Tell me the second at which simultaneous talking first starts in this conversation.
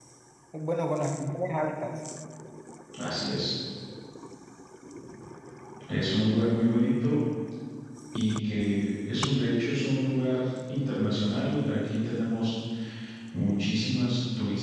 none

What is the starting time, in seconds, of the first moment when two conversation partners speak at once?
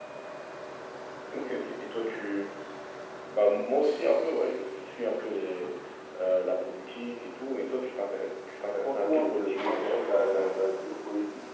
9 s

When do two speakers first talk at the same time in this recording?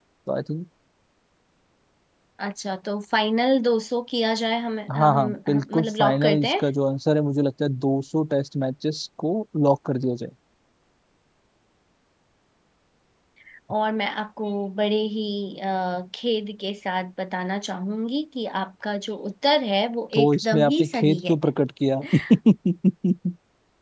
5 s

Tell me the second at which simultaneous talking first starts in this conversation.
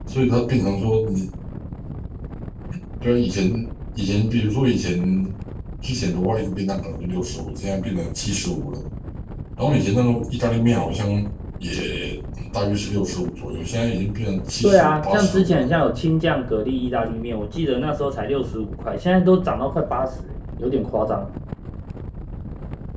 15 s

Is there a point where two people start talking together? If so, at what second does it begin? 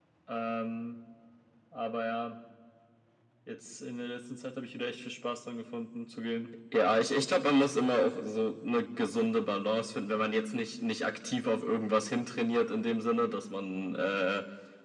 none

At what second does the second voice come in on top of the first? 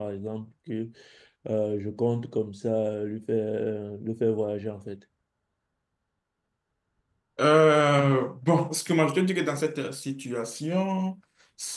none

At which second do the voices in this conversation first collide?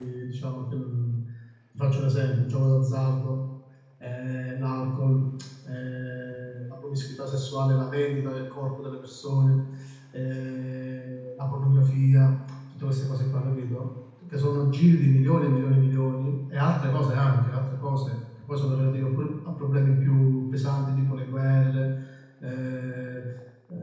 none

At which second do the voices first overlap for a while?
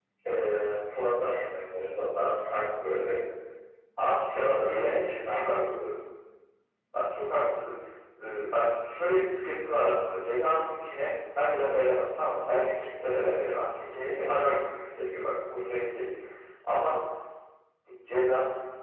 4 s

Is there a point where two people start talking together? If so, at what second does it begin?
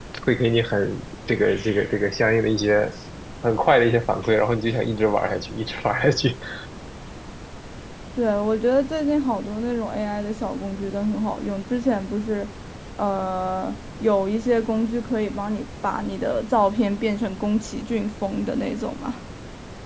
none

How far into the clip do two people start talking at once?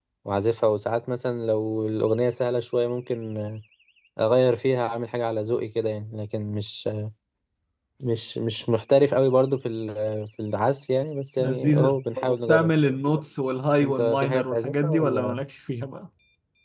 11 s

